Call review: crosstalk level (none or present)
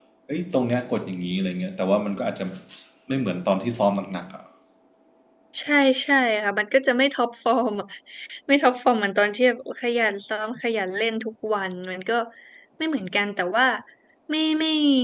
none